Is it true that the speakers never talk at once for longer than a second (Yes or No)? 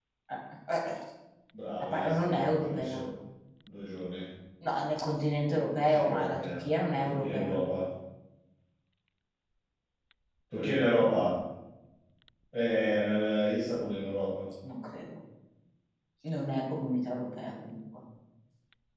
No